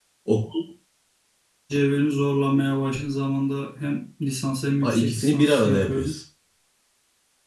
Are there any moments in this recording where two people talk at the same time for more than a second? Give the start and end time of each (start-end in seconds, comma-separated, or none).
4.8-6.1